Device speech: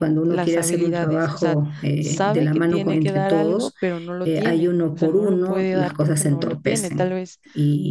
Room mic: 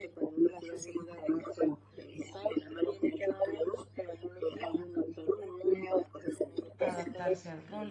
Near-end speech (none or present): present